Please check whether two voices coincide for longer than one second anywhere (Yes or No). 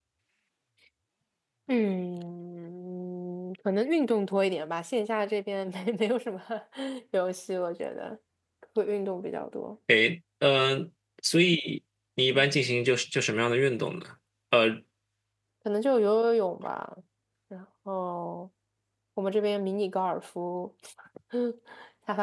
No